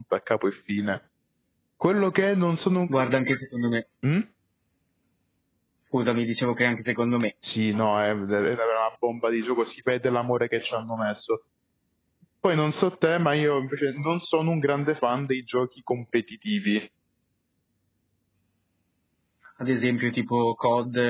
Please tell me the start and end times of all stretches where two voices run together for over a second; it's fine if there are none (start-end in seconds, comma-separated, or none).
none